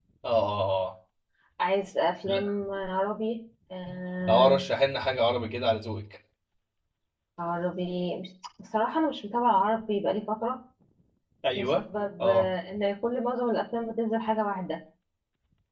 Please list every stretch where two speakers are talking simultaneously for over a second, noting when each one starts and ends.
none

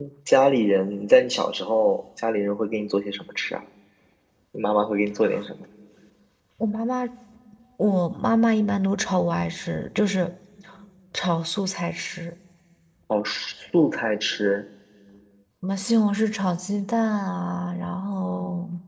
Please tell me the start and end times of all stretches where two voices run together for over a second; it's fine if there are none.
none

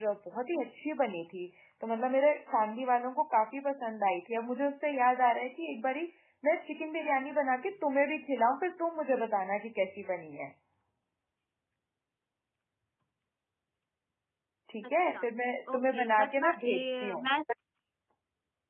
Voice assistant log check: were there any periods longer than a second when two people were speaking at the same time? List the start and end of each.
15.8-17.2

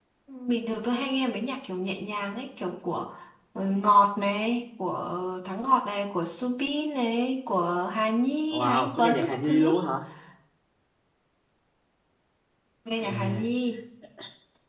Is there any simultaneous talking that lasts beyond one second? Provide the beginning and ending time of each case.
8.5-9.8

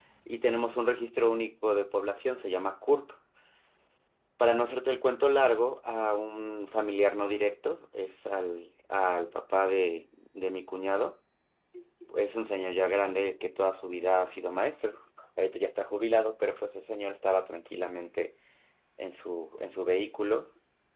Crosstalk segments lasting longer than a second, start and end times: none

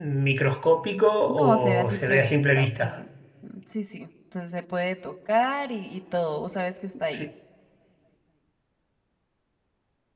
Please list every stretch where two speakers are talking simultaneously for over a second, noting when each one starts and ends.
1.4-2.9

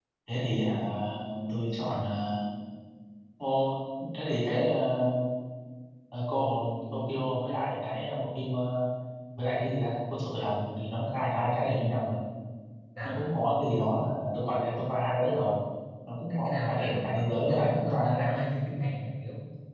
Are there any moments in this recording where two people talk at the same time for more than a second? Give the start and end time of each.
16.3-18.4

